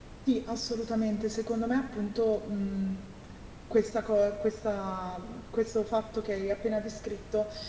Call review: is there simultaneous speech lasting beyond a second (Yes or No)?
No